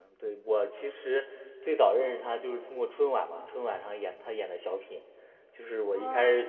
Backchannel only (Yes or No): Yes